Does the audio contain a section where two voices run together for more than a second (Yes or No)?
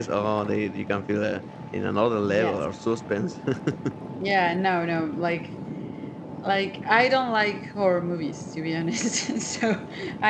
No